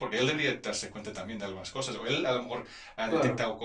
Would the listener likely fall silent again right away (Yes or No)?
Yes